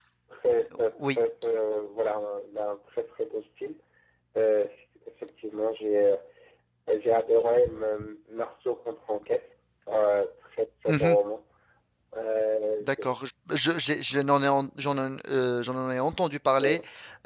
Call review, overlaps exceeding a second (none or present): none